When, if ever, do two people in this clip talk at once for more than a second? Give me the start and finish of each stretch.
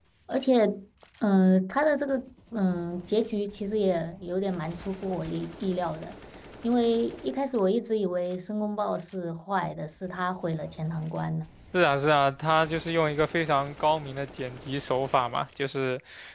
none

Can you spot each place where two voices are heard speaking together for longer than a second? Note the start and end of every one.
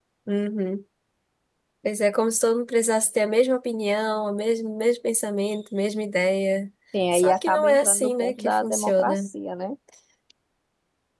7.1-9.3

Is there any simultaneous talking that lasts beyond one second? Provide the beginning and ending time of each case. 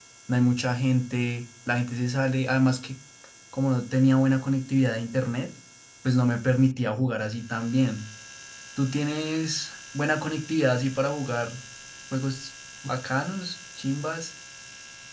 none

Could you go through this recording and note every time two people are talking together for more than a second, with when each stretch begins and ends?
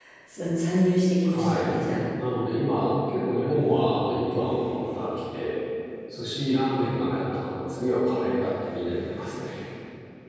none

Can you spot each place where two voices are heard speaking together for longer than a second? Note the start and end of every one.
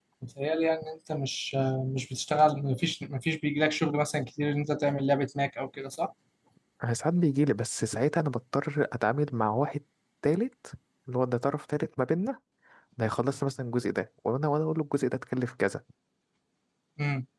none

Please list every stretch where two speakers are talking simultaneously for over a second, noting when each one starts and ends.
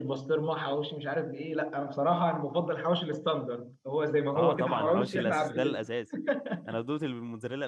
4.3-5.8

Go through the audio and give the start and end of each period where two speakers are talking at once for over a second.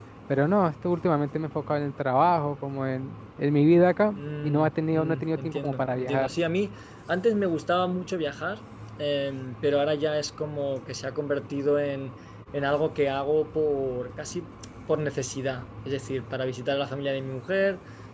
4.2-6.3

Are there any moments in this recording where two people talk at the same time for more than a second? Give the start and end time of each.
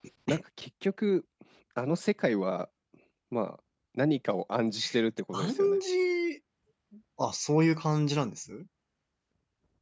none

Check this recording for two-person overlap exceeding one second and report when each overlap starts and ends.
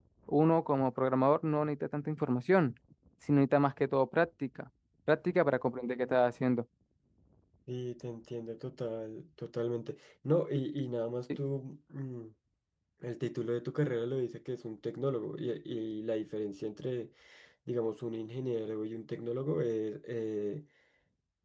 none

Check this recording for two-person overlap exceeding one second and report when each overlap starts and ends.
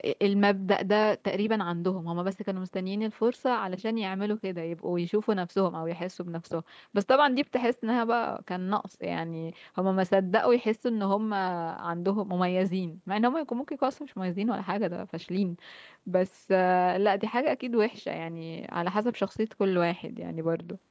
none

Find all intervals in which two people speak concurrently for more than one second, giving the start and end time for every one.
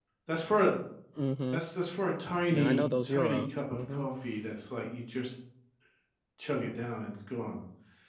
2.5-4.0

